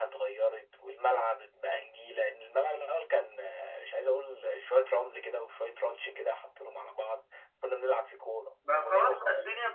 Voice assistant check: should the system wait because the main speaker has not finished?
No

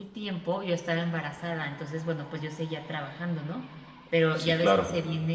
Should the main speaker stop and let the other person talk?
No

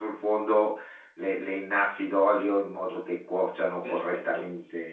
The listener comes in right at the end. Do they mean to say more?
No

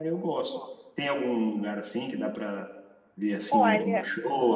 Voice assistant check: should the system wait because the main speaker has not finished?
Yes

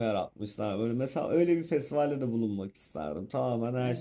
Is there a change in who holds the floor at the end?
Yes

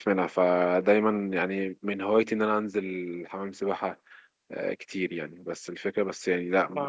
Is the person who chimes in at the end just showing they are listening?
No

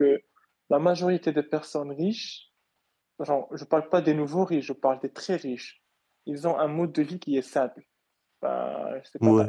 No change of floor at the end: Yes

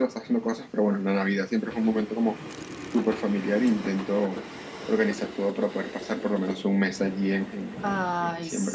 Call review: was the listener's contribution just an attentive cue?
No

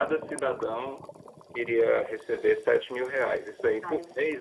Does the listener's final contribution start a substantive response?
No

